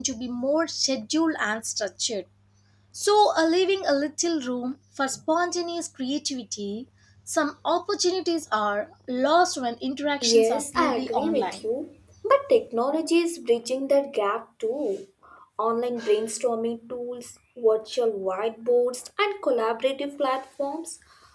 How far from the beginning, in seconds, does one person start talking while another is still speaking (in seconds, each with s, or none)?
10.2 s